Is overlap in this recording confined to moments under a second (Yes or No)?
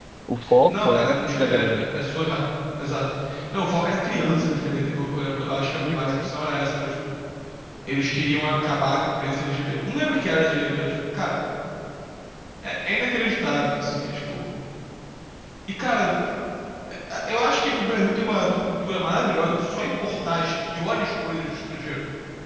No